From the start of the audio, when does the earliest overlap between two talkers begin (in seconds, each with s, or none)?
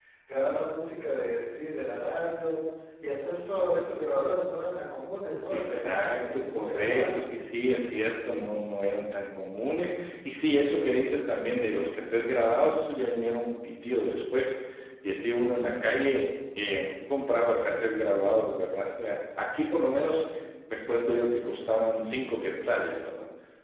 5.5 s